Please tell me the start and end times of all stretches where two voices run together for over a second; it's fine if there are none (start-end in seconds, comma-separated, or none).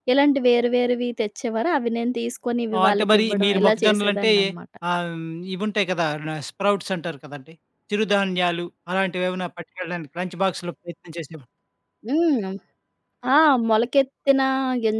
2.8-4.3